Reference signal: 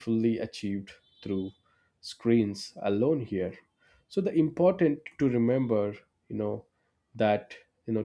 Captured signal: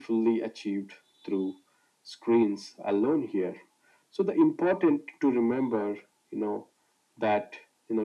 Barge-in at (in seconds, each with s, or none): none